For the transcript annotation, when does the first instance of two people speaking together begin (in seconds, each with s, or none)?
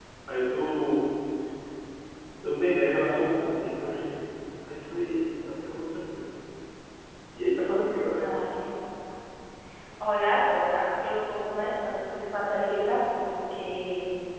none